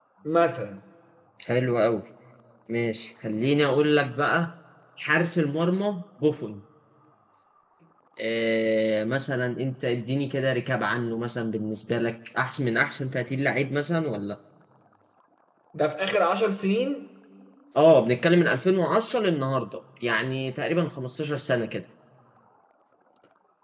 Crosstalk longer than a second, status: none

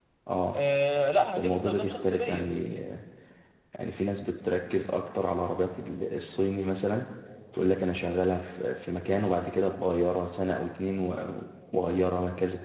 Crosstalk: present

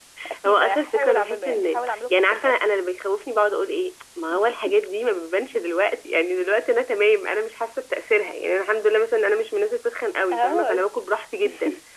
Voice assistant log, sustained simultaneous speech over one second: present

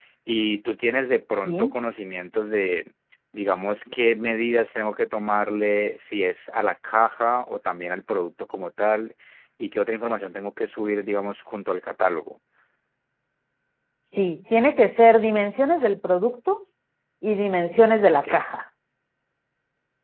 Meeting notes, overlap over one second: none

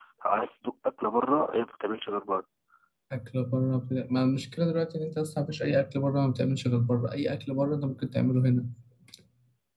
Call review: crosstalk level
none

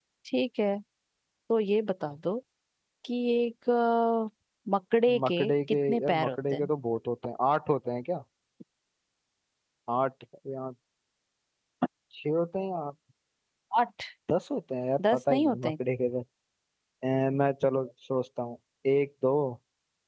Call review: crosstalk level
present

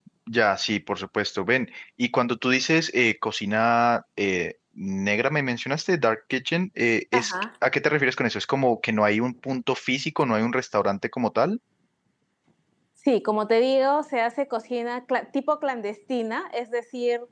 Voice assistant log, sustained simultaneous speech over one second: none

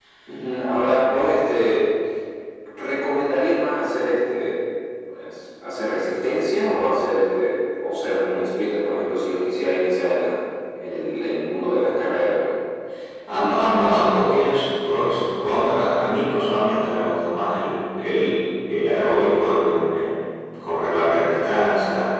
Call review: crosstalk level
none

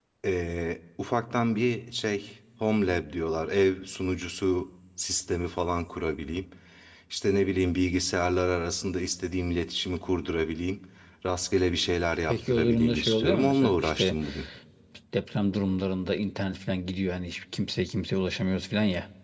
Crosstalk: present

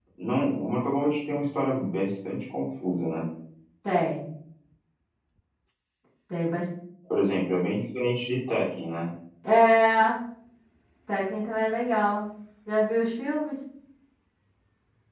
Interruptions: none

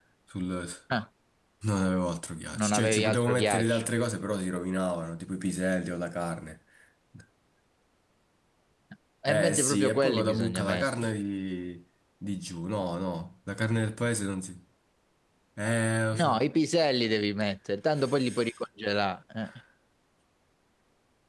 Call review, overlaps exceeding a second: present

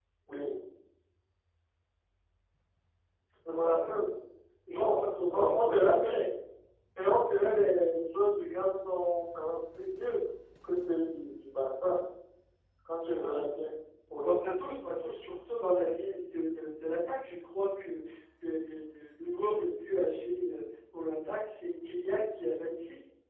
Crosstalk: present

